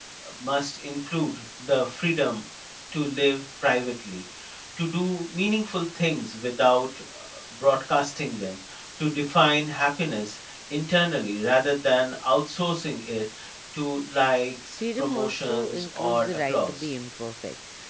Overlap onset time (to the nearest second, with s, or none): 15 s